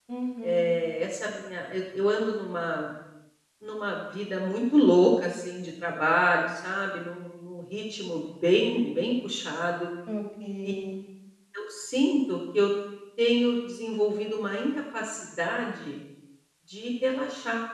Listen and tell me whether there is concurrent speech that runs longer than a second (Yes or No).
No